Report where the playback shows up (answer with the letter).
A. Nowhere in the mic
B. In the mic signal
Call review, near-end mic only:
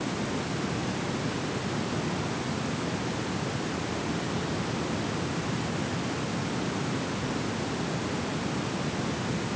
A